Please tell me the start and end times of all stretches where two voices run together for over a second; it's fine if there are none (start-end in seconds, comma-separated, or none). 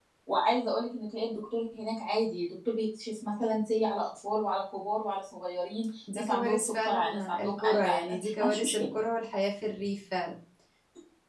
6.1-8.8